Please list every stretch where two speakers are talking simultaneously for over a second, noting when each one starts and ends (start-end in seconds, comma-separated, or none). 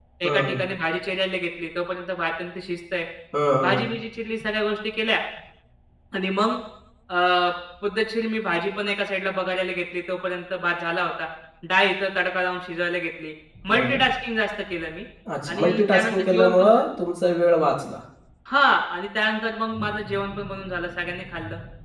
15.5-16.8